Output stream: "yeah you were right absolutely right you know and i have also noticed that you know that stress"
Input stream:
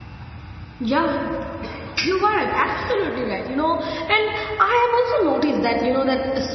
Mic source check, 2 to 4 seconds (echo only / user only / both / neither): echo only